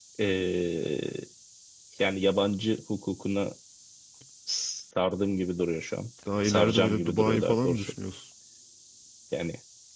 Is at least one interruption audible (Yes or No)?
Yes